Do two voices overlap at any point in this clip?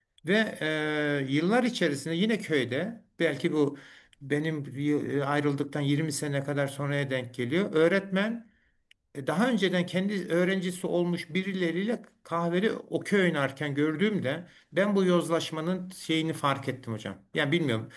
No

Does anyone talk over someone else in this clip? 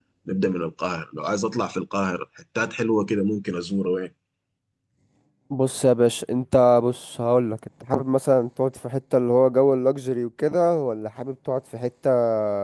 No

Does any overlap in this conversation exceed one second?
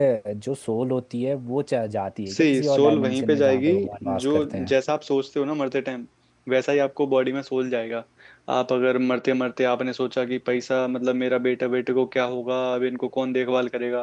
Yes, from 2.3 s

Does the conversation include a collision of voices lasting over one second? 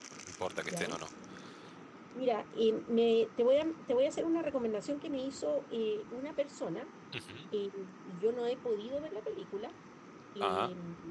No

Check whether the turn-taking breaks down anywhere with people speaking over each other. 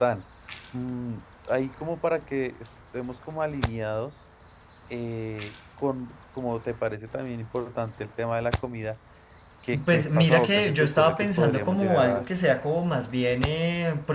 Yes, from 9.9 s

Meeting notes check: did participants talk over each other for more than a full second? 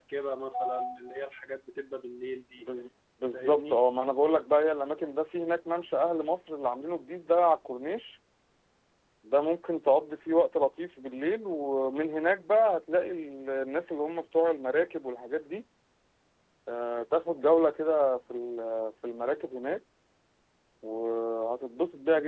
No

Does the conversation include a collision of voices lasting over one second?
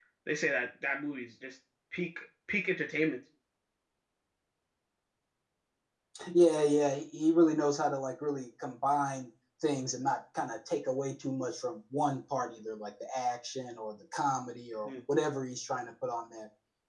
No

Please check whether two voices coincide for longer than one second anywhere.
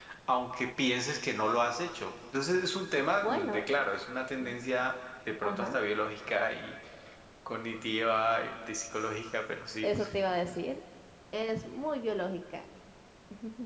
No

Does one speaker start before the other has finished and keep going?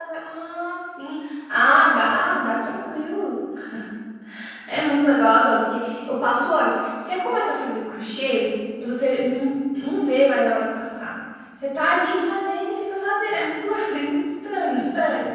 No

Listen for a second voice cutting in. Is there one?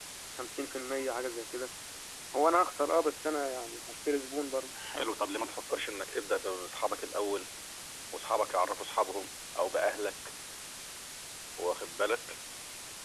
No

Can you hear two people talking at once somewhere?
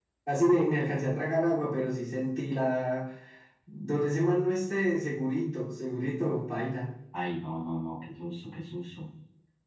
No

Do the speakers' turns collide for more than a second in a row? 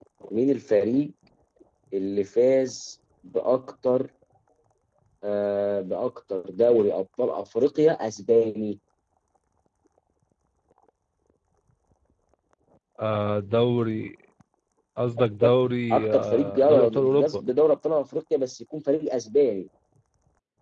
Yes, from 15.9 s

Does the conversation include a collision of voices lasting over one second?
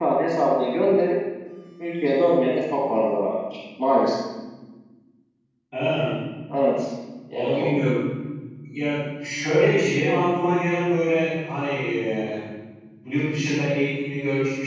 No

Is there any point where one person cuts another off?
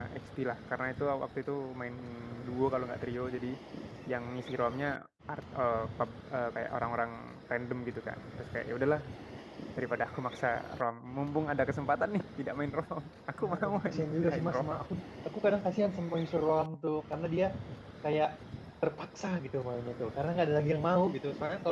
Yes, from 13.4 s

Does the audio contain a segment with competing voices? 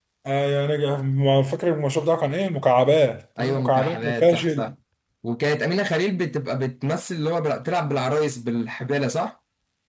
Yes, from 3.4 s

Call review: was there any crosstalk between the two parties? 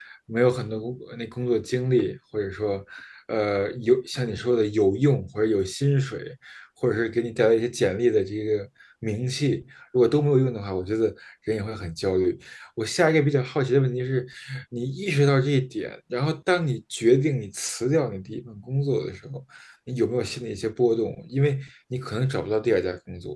No

